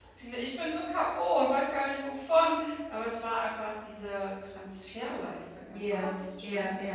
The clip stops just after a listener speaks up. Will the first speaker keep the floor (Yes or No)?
No